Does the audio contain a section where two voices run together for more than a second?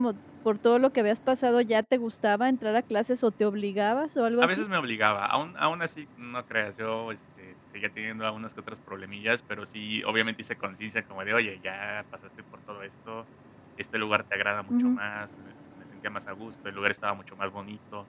No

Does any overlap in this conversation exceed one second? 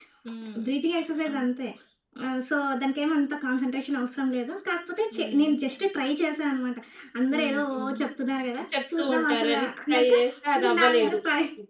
Yes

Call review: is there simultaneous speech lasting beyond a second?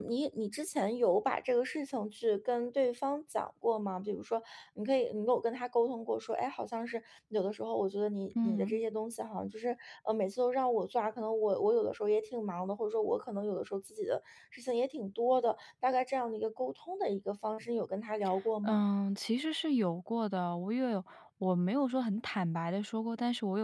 No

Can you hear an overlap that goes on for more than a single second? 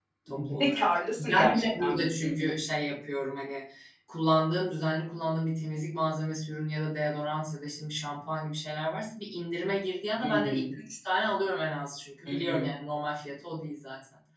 Yes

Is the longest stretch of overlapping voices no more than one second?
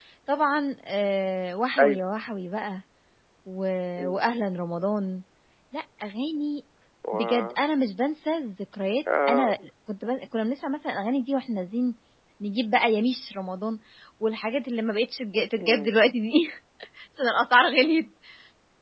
Yes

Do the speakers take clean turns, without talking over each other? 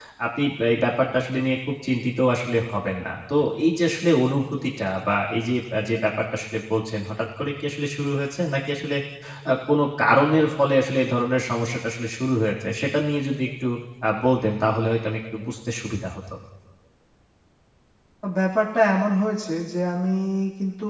Yes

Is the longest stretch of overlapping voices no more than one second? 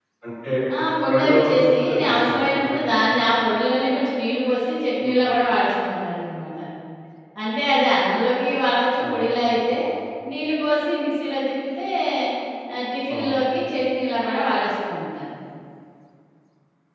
No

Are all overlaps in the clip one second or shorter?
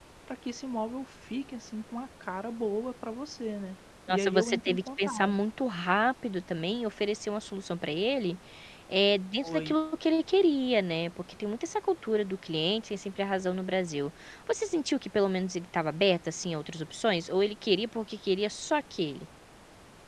No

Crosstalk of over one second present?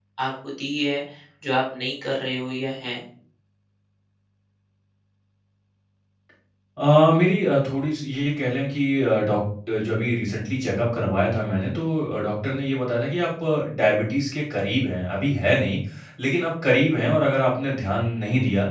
No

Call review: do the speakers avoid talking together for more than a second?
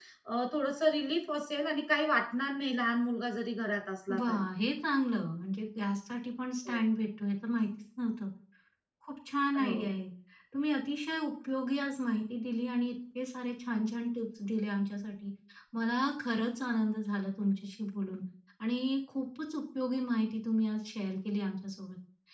Yes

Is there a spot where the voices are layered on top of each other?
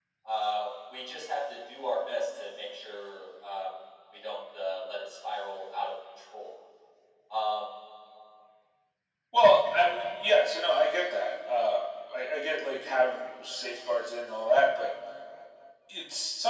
No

